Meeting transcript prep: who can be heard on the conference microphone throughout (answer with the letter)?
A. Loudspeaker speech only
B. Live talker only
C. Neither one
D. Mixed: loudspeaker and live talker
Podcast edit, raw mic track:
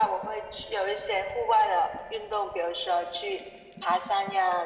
A